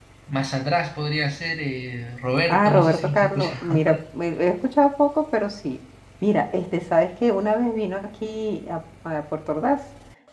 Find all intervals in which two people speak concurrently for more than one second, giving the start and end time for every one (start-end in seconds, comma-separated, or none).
2.5-3.8